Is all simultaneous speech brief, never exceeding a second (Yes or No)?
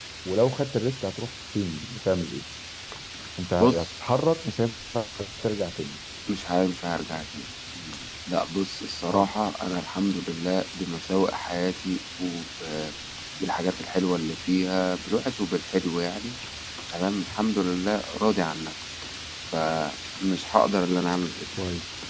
Yes